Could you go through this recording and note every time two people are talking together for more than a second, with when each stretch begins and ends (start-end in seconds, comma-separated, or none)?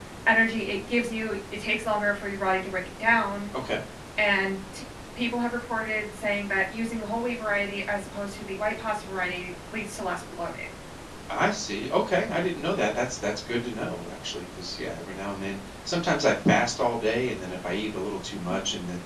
none